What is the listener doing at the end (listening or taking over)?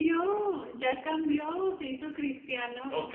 taking over